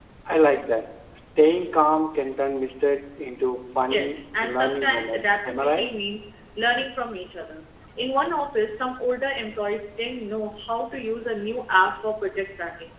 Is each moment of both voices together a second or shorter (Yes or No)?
No